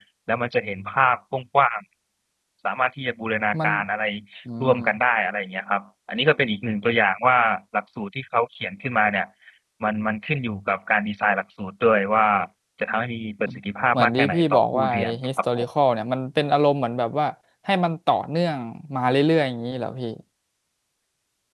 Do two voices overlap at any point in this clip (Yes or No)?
Yes